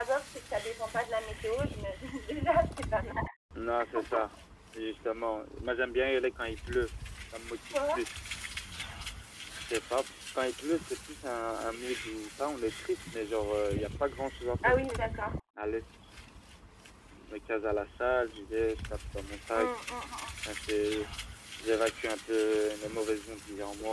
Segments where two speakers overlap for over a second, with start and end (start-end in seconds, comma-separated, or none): none